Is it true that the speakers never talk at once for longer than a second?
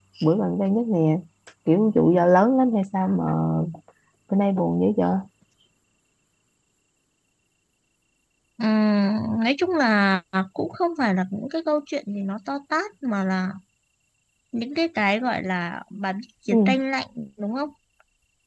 Yes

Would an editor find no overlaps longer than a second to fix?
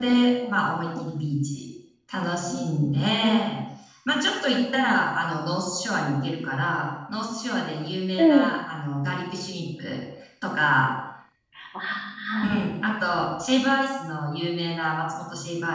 Yes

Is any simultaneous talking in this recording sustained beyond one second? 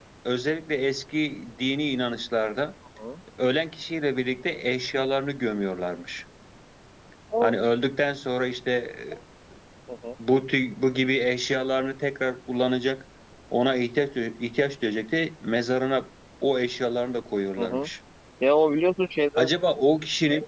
No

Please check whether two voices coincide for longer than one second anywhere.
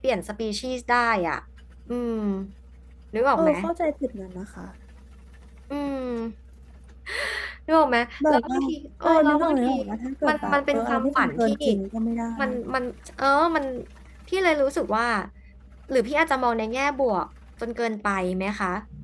Yes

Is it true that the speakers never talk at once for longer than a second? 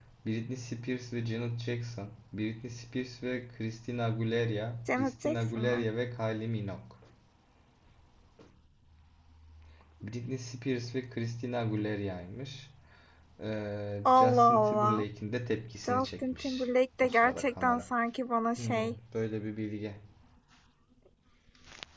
No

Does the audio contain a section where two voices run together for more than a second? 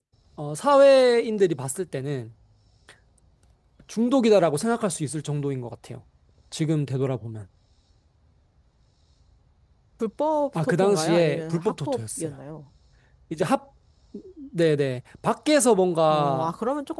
Yes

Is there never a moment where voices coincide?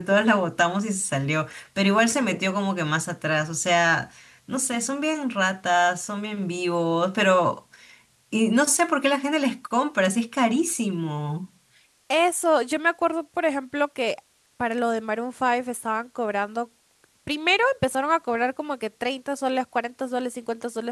Yes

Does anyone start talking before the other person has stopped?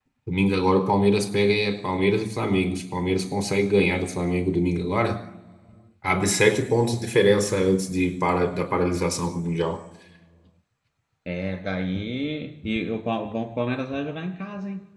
No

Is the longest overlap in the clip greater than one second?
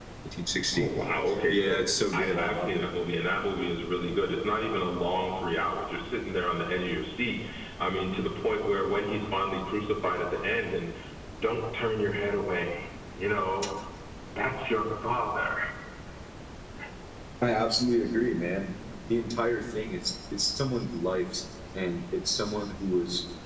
Yes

